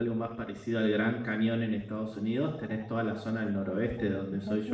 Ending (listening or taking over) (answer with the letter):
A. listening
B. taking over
A